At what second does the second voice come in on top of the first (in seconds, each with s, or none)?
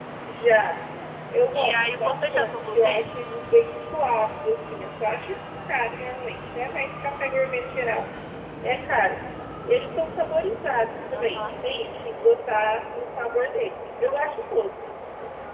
1.5 s